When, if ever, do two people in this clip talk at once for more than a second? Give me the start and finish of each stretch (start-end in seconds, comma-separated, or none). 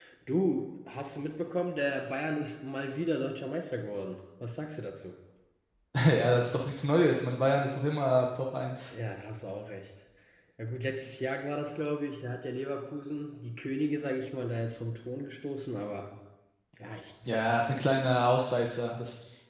none